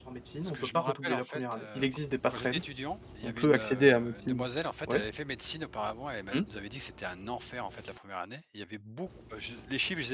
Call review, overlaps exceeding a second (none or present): present